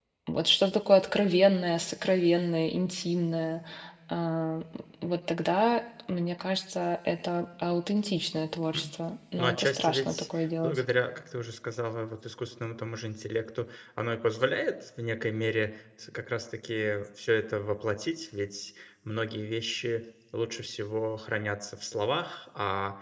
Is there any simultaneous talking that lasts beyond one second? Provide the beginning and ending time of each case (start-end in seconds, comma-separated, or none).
9.4-10.8